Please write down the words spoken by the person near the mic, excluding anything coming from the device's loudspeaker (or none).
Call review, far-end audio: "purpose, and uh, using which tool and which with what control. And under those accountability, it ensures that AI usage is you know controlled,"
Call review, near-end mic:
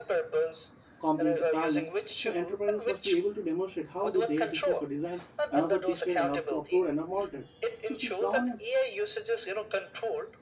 compliance requirement. So enterprises must be able to demonstrate how these AI systems were designed and also tested and are approved and are monitored. So these governance